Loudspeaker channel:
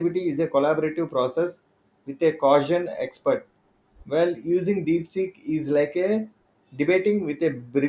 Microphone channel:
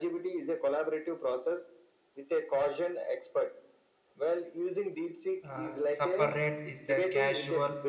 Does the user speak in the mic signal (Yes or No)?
Yes